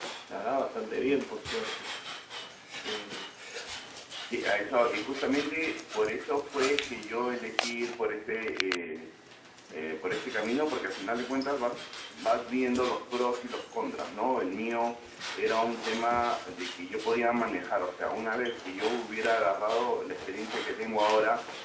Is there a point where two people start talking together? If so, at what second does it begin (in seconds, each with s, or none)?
none